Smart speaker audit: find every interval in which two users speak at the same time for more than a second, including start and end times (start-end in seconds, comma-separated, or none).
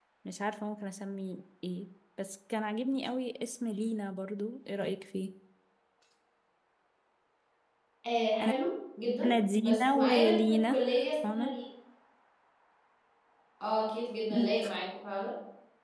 9.2-10.9